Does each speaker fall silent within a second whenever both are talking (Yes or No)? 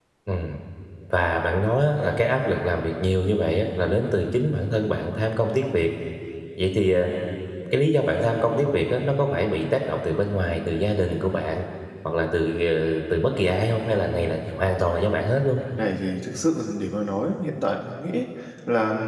Yes